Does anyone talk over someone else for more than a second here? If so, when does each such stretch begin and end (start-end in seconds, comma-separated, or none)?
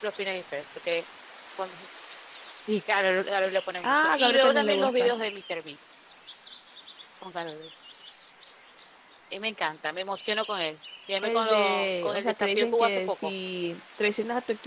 3.8-5.1, 11.2-13.3